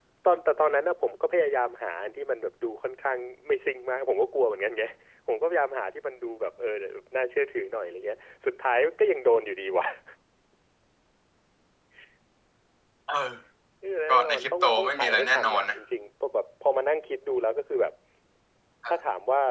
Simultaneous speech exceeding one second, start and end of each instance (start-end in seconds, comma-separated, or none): 14.1-15.8